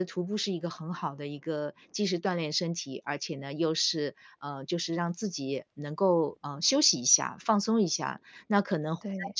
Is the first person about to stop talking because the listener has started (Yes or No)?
No